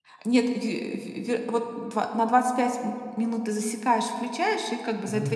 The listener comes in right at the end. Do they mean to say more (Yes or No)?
No